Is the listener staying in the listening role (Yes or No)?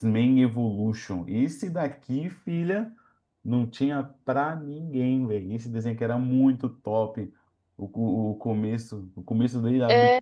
Yes